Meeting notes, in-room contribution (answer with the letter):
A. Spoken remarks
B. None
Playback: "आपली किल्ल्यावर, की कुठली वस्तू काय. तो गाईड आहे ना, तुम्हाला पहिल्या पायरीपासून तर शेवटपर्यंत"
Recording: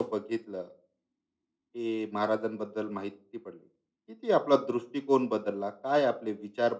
A